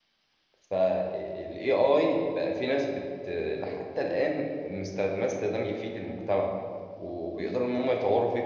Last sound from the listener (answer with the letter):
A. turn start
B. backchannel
B